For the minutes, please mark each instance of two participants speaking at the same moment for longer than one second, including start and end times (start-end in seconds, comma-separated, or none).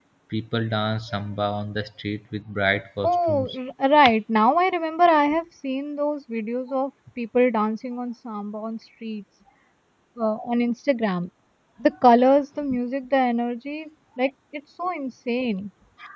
none